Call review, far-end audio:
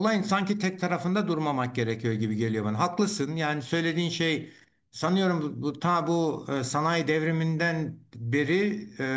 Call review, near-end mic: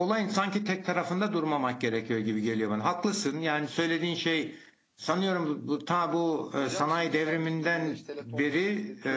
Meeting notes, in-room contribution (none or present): present